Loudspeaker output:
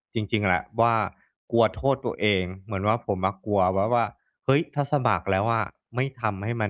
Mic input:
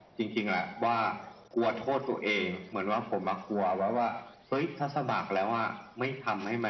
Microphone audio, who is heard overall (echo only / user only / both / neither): echo only